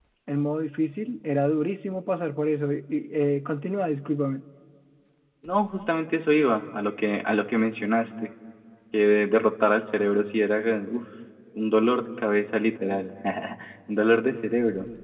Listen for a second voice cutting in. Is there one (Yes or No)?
No